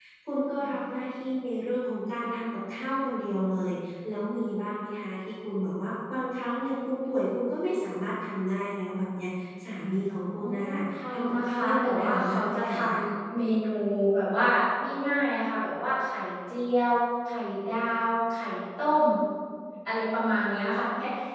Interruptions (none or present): present